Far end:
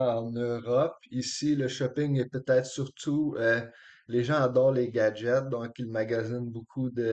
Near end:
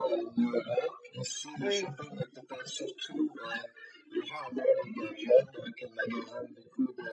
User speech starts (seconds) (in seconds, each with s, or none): 1.6 s